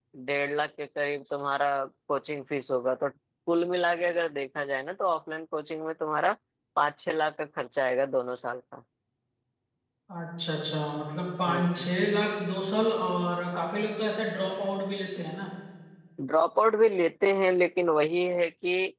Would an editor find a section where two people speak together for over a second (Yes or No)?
No